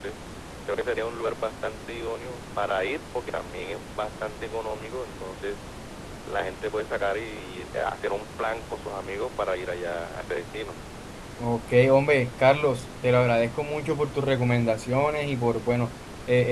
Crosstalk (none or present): none